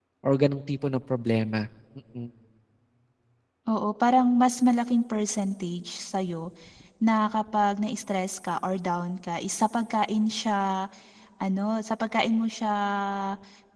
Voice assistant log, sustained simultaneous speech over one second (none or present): none